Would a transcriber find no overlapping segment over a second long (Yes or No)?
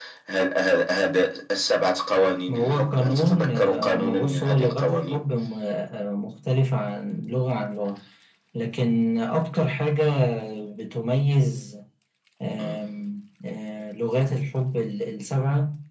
No